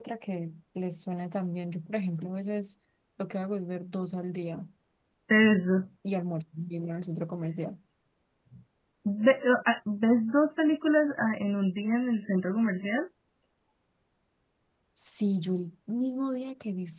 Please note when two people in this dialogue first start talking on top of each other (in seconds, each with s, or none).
none